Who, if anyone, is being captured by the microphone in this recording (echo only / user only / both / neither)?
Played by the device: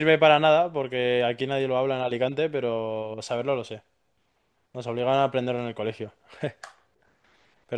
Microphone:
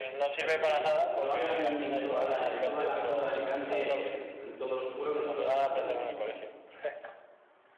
both